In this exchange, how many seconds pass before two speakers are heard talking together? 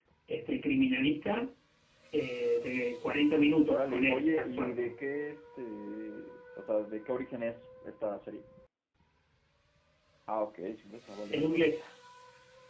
3.7 s

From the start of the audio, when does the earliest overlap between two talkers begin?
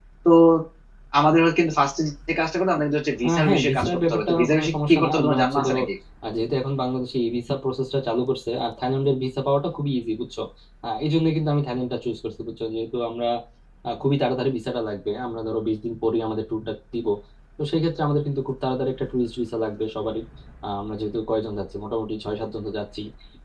3.2 s

